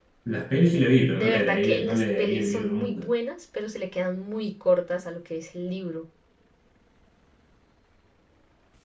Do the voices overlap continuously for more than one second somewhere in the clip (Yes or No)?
Yes